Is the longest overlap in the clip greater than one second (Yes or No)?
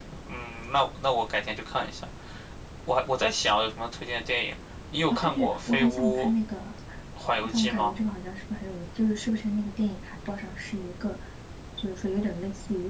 Yes